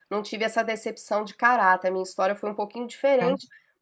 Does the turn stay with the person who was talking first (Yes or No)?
Yes